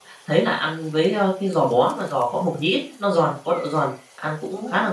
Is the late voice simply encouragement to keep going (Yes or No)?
Yes